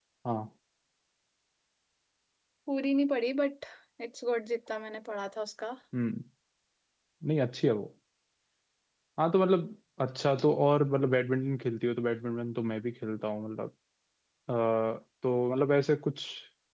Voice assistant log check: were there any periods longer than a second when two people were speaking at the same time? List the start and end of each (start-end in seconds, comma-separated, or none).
none